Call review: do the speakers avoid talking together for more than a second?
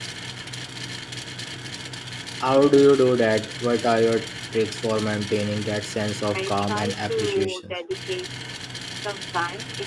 No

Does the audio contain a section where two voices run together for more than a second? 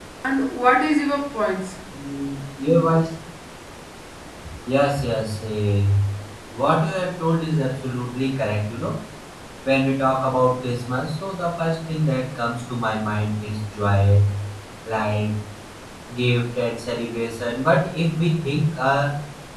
No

